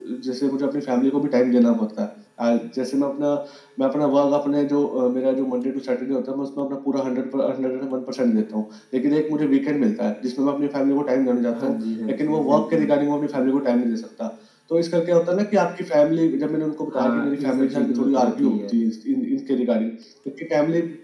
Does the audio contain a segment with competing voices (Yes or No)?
Yes